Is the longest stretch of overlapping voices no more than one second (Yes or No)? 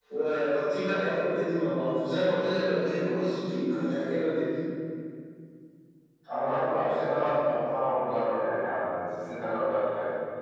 Yes